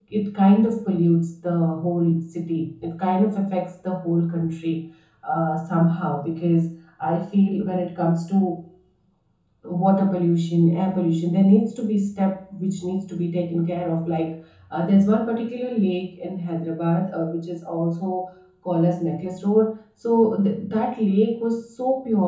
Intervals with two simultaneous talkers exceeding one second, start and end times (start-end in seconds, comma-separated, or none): none